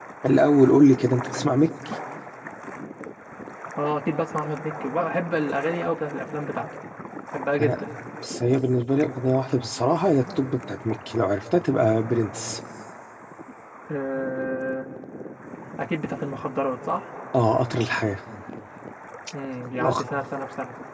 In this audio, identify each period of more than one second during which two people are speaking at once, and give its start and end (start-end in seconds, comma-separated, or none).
none